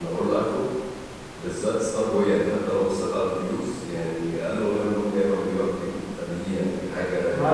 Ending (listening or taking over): taking over